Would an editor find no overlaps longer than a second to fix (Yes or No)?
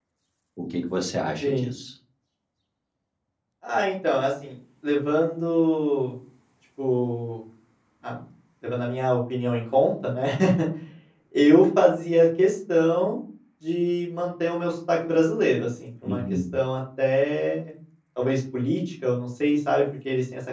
Yes